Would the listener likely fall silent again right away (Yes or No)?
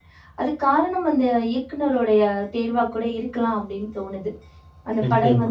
Yes